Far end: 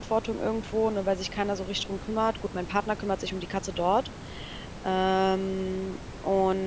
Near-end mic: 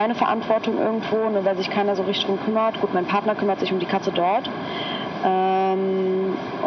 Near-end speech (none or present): none